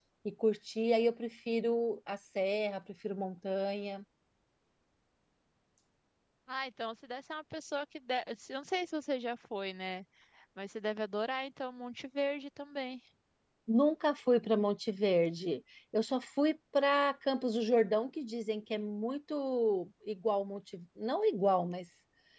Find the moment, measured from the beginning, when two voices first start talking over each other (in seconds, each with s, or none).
none